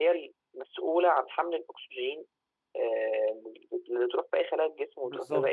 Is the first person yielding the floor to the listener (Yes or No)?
Yes